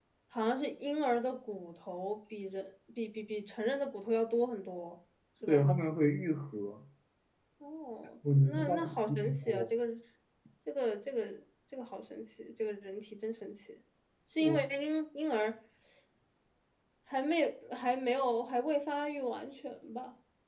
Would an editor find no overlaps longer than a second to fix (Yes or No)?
No